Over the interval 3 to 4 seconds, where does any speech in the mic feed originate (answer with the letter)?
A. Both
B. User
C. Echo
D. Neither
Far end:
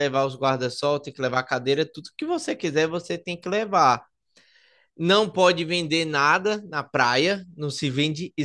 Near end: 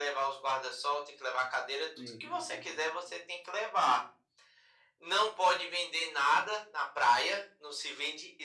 C